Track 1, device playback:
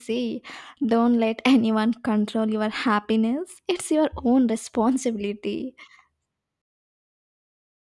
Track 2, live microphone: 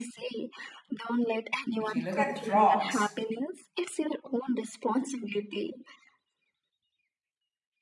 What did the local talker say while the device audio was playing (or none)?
if you look at the frogs,